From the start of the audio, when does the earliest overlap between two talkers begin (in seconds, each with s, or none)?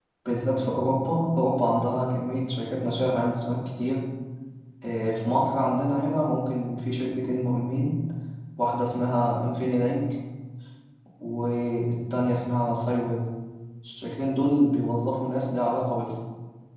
none